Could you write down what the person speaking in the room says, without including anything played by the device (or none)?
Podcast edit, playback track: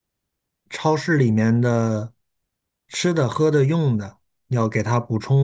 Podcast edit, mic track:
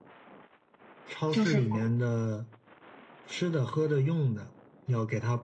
就是我。